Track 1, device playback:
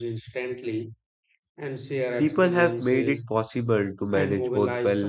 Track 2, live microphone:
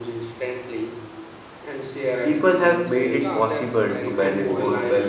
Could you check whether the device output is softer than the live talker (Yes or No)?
No